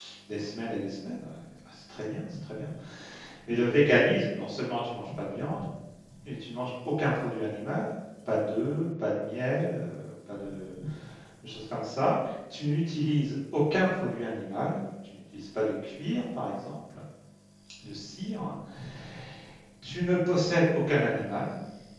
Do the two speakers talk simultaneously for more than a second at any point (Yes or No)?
No